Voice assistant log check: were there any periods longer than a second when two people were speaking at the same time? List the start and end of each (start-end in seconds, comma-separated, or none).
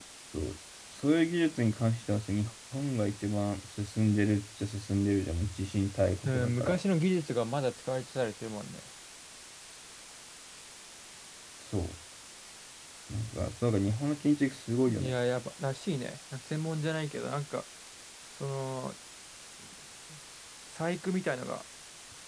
none